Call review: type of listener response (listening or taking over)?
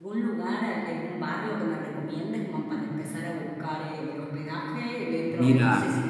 listening